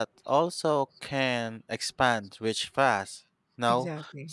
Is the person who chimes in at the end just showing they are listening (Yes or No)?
Yes